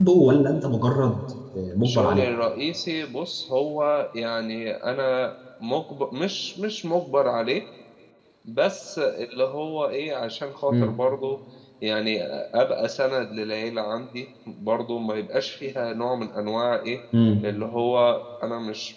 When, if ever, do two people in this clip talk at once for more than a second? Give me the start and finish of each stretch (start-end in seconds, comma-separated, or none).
none